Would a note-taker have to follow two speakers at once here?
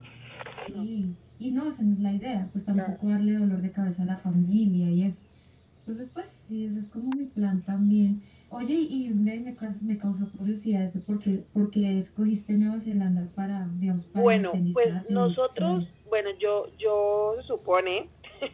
Yes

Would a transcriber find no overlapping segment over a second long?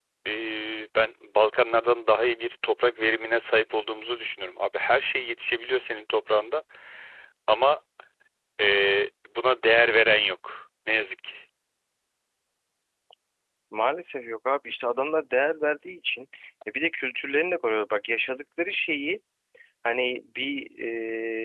Yes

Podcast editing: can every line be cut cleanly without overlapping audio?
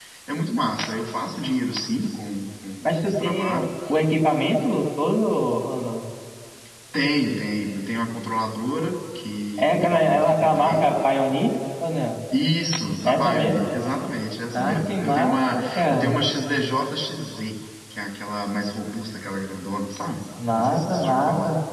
No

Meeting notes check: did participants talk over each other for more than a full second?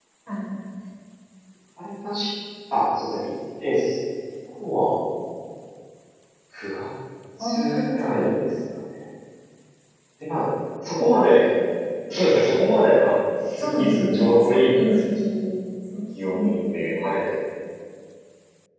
Yes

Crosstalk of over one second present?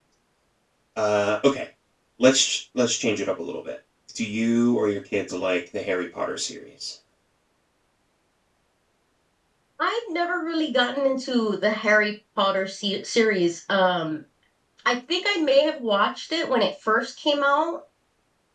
No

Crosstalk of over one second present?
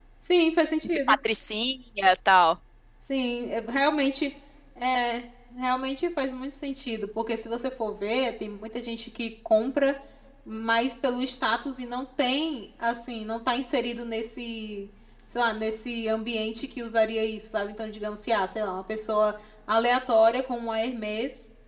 No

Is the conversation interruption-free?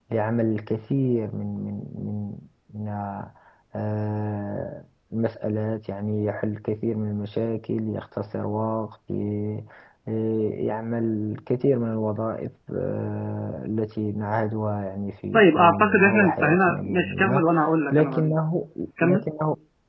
No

